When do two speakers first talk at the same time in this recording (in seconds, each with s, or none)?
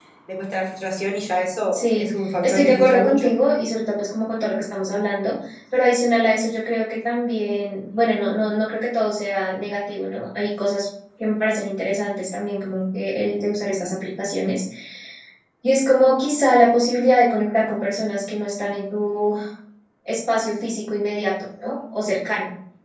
1.7 s